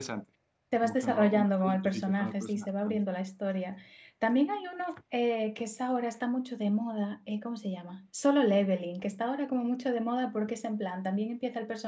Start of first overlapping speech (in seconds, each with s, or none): 0.8 s